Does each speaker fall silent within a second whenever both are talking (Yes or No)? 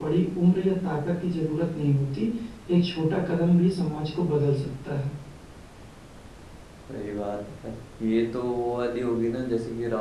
Yes